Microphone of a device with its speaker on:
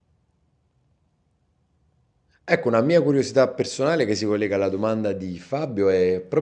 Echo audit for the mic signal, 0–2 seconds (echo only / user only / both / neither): neither